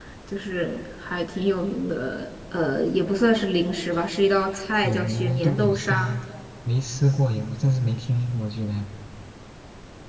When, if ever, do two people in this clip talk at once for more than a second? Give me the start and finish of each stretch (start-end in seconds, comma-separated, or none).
4.8-6.2